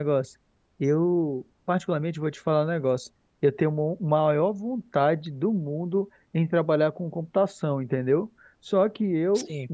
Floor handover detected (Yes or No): No